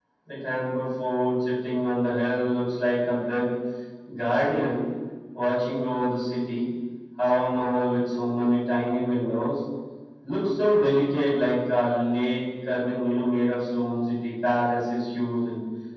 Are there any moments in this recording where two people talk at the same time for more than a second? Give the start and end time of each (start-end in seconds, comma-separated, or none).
none